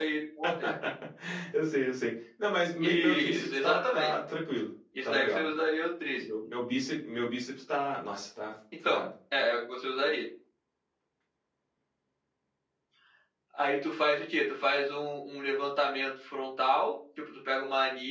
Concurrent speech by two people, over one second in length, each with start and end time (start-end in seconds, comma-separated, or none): 2.8-4.1